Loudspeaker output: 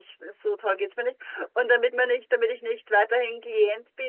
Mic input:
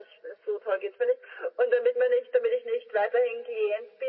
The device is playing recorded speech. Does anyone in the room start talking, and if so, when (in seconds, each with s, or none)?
none